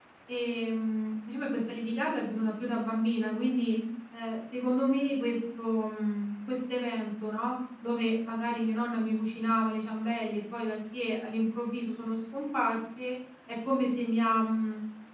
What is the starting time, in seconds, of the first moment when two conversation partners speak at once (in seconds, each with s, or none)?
none